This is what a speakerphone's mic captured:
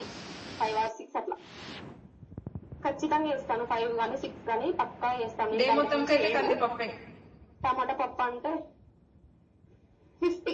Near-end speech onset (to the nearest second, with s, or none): 6 s